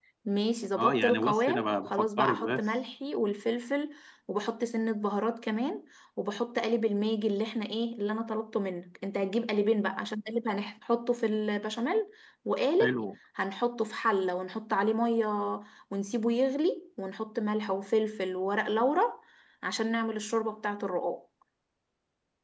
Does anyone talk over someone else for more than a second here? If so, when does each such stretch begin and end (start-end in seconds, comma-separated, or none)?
0.8-2.7